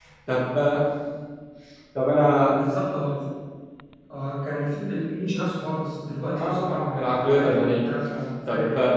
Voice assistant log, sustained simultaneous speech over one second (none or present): present